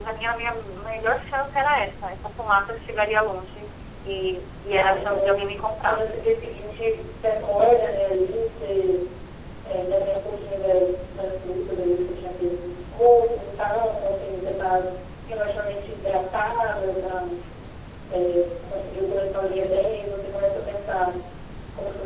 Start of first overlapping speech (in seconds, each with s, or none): 4.8 s